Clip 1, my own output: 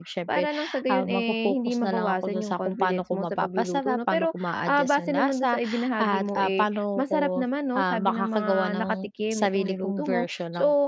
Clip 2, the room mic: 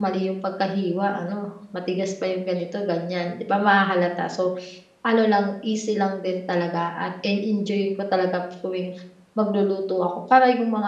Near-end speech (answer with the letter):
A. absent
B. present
B